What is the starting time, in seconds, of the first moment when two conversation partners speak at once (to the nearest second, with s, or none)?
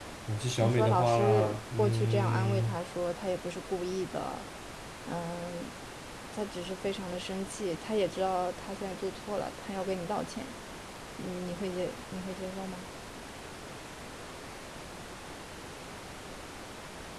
1 s